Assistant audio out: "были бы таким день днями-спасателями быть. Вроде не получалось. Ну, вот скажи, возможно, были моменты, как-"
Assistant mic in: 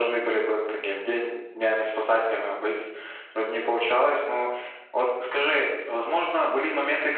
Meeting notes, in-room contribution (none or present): none